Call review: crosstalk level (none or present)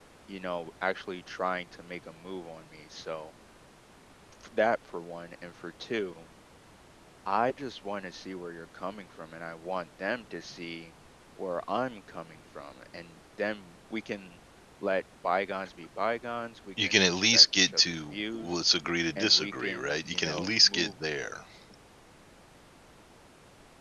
present